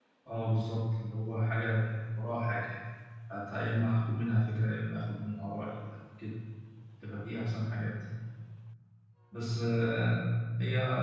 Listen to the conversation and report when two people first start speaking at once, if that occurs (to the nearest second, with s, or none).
none